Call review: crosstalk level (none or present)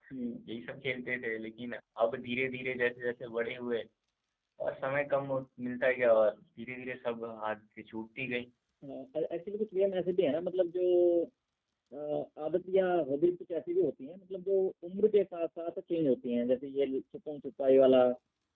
none